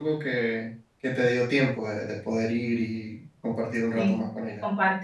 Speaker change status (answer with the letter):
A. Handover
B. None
A